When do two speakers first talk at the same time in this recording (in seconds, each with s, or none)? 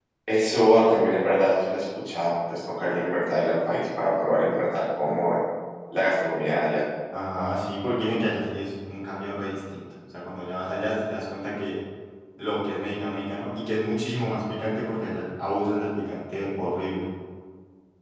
none